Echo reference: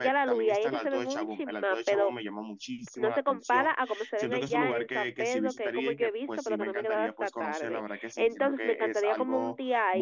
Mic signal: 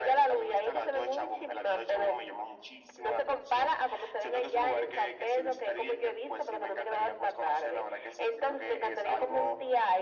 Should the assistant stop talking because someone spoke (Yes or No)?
No